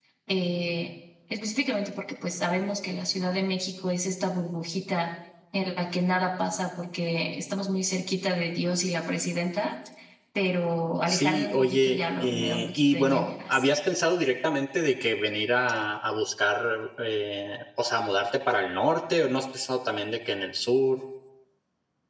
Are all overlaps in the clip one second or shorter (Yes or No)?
No